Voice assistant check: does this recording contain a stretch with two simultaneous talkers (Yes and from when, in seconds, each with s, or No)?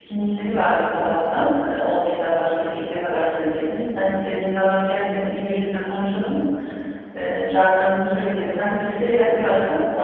No